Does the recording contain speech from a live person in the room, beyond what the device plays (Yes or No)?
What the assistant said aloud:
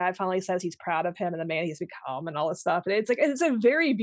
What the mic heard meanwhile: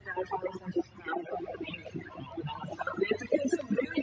No